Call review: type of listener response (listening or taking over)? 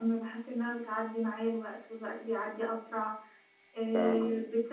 listening